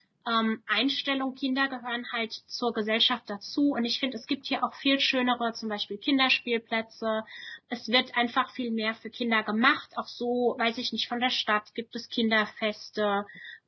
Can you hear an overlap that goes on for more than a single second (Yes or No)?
No